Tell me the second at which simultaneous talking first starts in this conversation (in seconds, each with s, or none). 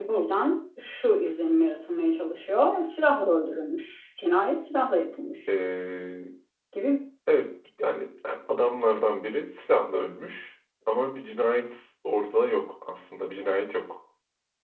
none